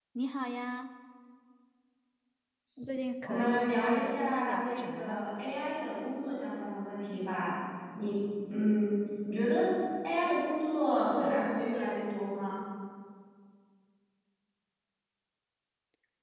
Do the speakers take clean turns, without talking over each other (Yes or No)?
No